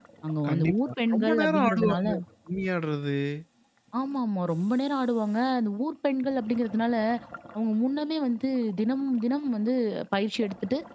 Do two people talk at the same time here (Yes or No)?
Yes